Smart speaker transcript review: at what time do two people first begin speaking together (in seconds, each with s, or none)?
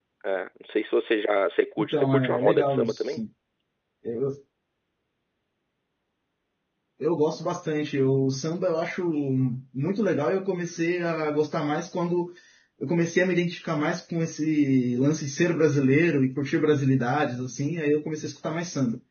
1.8 s